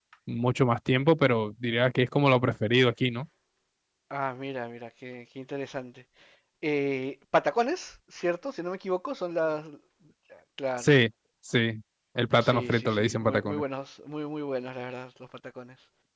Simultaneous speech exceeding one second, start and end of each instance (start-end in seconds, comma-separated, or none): 12.4-13.6